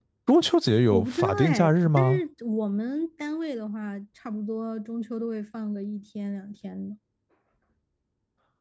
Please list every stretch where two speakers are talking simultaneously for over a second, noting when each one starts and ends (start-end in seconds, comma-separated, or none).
0.9-2.2